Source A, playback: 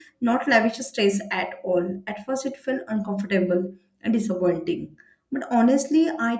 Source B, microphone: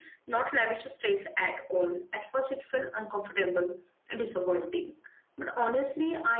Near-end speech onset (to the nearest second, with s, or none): none